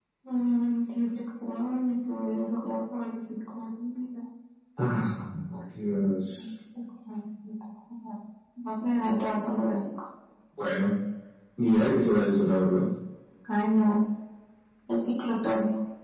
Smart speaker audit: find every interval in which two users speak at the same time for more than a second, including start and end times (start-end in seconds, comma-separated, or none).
none